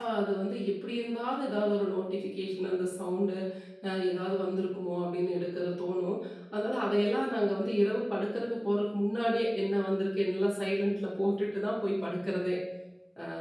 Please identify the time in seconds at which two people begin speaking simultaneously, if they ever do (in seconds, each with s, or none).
none